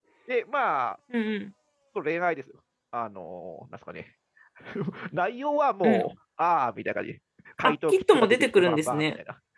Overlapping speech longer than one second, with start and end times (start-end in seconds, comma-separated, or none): 7.6-9.0